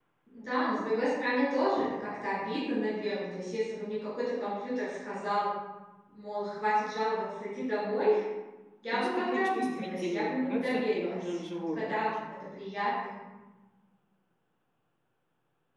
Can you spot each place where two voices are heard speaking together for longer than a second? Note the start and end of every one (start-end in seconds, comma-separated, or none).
8.9-12.0